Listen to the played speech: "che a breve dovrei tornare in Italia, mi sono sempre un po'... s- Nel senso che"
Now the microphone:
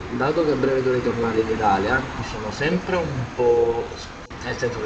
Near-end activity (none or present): none